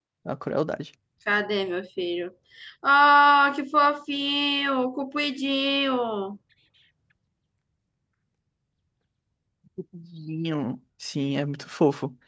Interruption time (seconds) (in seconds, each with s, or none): none